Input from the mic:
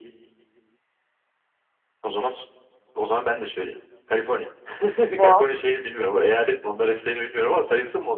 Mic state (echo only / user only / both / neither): both